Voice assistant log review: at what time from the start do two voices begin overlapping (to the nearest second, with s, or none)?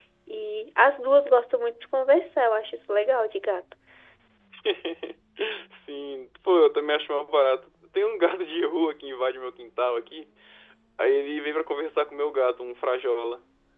none